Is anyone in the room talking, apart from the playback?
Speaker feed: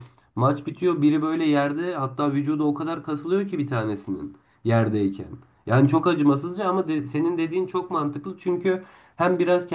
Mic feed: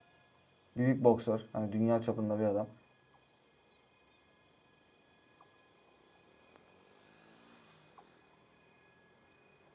Yes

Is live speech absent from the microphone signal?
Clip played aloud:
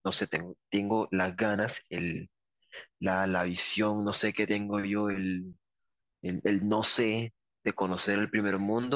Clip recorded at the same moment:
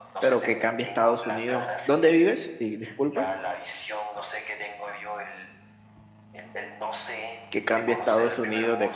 No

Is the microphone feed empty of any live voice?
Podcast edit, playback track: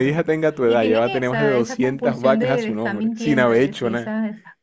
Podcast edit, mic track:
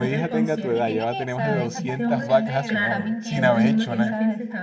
No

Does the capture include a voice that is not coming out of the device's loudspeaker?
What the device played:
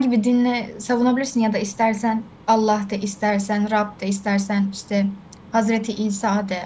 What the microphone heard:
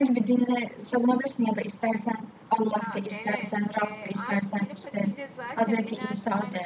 Yes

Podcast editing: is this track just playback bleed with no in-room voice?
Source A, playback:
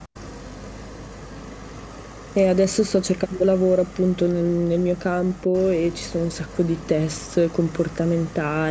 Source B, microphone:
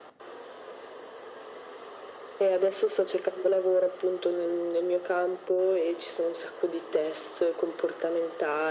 Yes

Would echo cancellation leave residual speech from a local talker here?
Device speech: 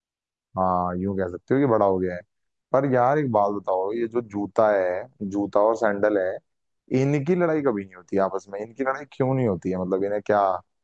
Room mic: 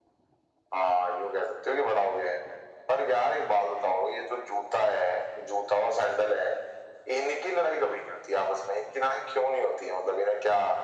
No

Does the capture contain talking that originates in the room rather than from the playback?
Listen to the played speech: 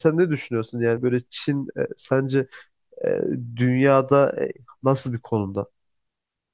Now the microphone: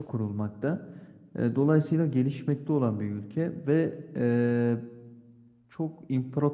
Yes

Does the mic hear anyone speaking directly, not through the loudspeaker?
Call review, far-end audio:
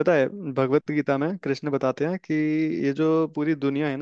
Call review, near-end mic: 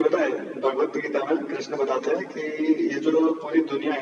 No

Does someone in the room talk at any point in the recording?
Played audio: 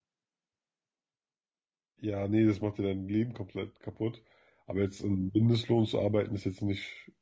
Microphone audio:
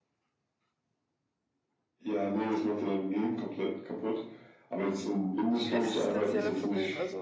Yes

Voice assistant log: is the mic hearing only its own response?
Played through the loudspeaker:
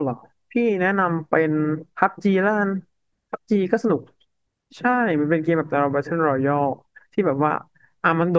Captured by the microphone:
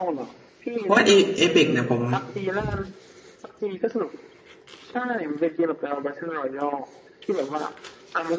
No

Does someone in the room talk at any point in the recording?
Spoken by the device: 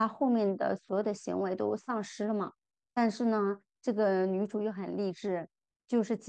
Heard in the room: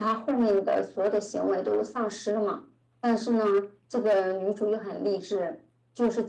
No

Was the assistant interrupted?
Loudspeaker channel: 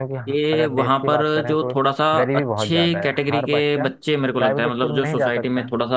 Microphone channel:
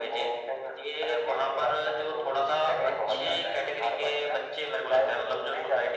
Yes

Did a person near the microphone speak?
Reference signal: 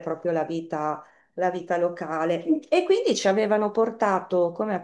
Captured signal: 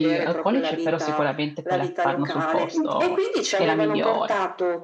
Yes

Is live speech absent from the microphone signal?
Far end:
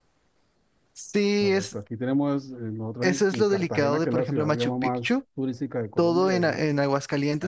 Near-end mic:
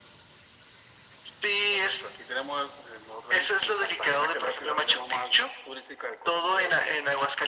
Yes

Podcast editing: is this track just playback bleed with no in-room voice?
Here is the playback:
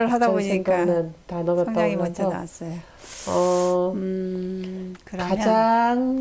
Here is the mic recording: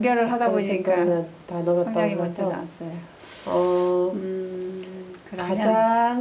Yes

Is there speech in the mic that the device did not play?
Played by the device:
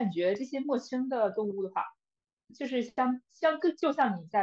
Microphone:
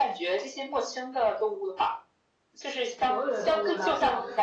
Yes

